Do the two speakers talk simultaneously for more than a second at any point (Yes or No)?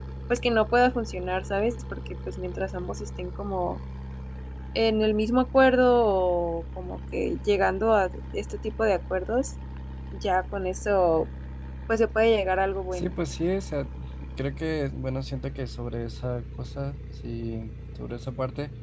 No